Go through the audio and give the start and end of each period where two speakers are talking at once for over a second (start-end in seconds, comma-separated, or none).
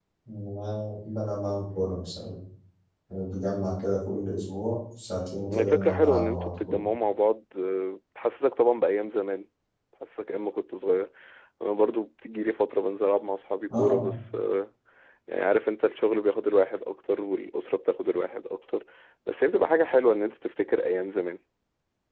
5.5-6.8